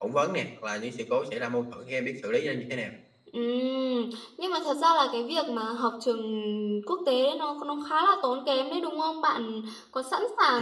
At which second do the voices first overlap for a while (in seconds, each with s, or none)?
none